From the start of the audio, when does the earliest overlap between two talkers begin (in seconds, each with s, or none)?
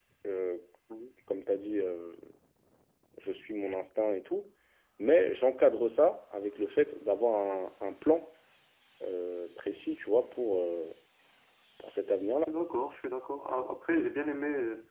none